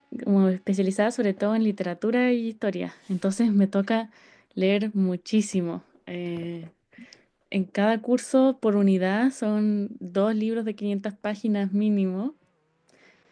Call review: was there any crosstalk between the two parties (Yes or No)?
No